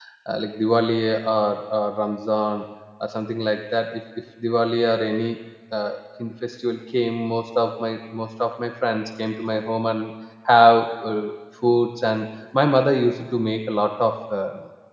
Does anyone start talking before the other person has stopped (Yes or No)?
No